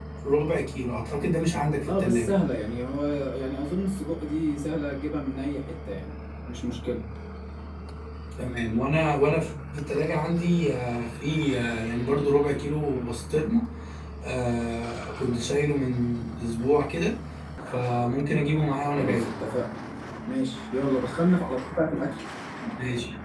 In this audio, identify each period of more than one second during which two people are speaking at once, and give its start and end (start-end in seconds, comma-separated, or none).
none